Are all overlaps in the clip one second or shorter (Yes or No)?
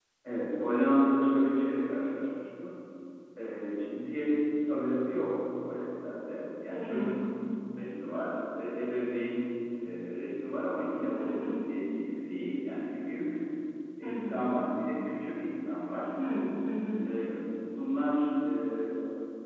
Yes